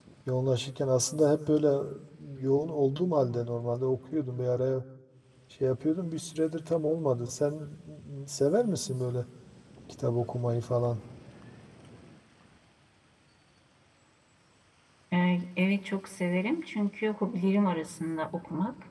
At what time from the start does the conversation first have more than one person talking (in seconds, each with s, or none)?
none